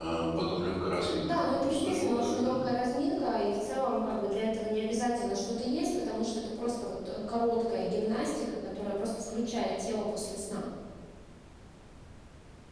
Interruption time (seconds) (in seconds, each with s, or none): 1.2 s